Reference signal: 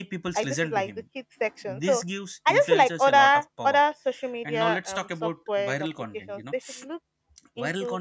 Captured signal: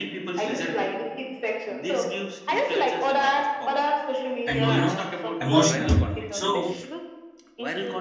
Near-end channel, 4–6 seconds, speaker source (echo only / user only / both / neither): both